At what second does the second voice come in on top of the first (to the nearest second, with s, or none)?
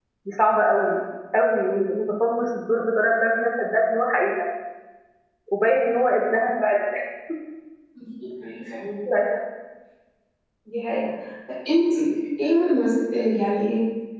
none